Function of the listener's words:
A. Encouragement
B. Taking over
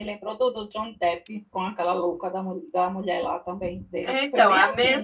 B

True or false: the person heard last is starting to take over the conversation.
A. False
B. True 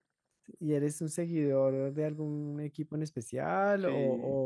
B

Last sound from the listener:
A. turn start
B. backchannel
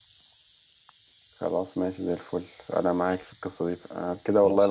B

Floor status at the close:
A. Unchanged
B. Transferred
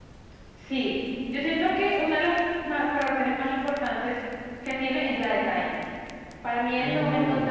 A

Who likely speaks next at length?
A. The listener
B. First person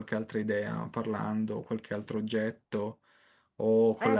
A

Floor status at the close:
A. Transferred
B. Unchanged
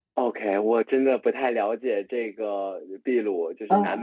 B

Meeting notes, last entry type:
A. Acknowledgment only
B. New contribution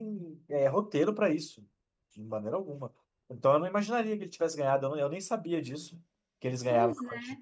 B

